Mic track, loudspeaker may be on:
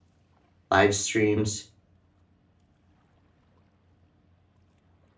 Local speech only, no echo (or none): live streams,